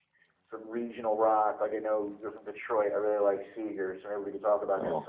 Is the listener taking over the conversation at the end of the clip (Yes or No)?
Yes